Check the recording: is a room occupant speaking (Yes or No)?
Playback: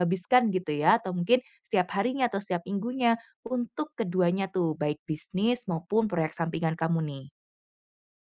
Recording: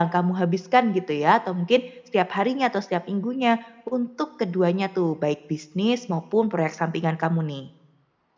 No